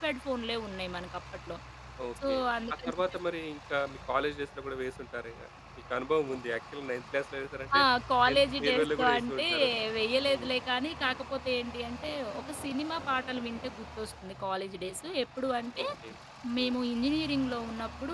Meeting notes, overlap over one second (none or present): present